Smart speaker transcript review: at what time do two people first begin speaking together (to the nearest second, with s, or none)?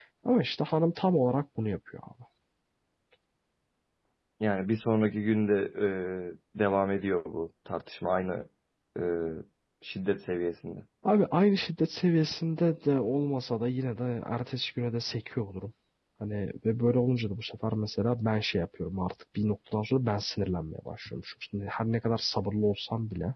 none